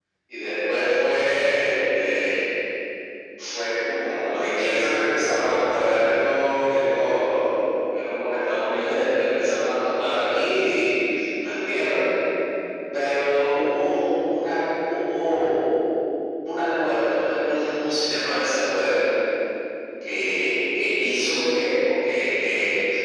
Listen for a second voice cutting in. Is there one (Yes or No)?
No